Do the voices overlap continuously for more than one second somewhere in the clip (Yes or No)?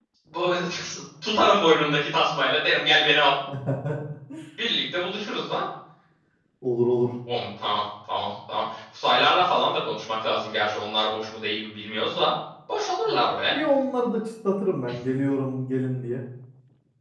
No